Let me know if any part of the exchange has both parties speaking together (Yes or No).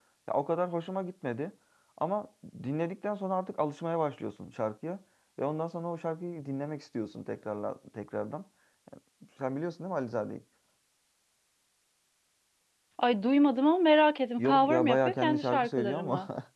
Yes